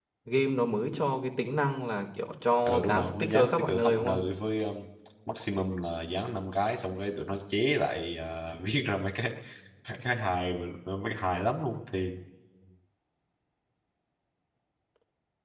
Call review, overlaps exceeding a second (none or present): present